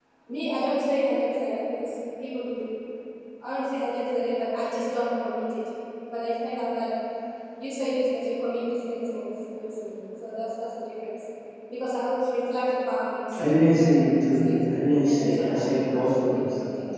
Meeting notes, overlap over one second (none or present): present